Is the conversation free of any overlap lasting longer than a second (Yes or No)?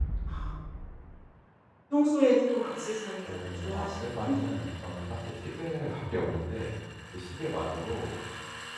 No